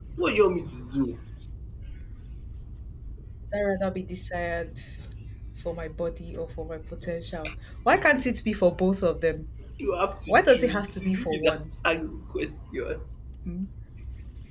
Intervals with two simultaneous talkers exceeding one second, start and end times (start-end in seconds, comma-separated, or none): 10.3-11.6